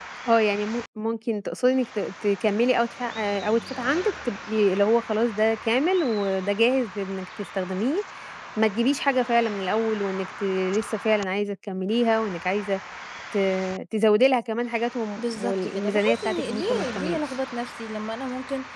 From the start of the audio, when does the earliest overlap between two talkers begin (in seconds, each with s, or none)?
15.2 s